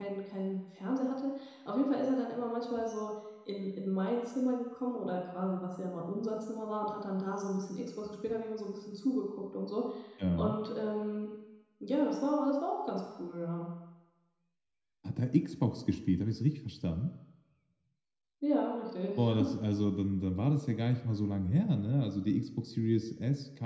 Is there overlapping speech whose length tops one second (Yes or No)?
No